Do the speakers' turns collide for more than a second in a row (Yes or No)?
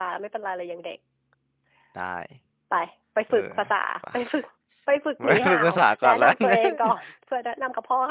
Yes